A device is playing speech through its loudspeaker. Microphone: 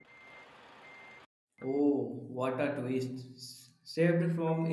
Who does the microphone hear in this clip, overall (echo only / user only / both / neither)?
user only